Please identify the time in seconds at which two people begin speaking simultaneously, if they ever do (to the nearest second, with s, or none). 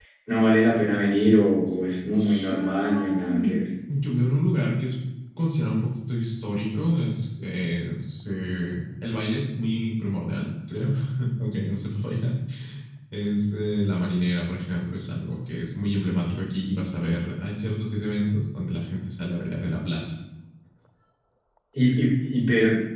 2 s